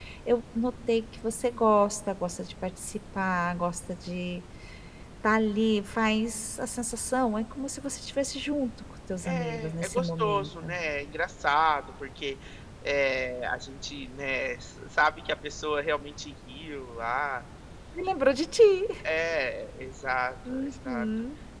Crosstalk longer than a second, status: present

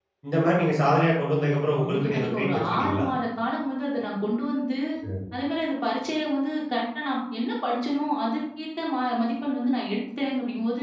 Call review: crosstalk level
present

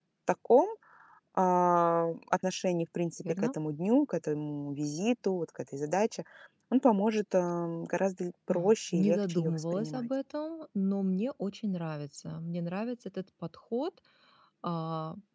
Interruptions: present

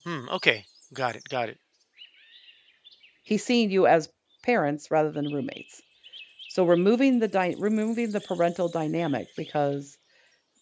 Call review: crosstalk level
none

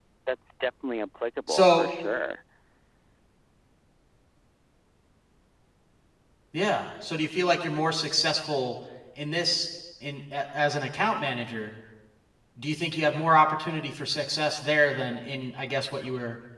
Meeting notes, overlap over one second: none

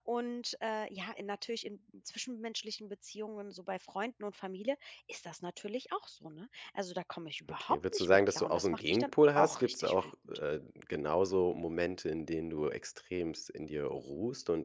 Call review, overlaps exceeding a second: present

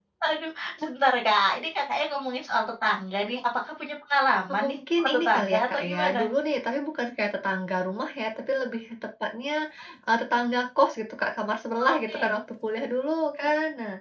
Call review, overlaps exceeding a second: present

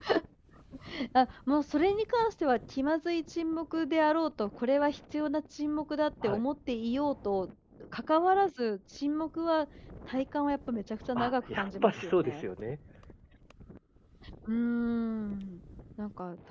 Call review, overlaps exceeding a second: present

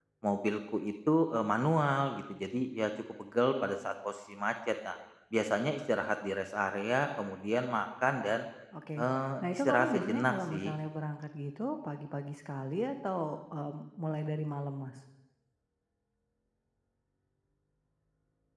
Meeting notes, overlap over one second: present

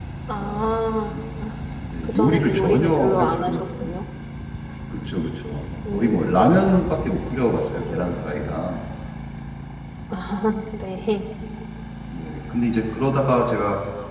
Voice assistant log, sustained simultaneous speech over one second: present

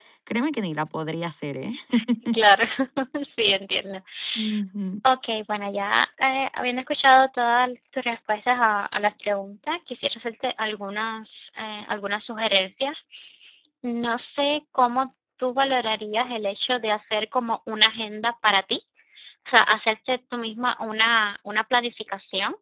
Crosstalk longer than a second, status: none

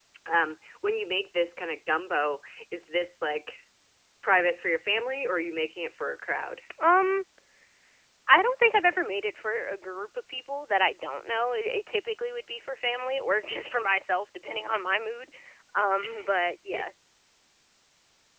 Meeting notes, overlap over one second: none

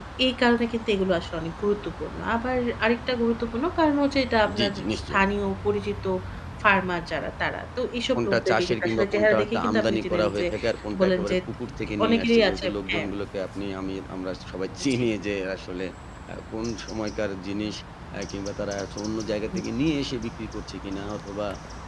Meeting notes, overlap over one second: present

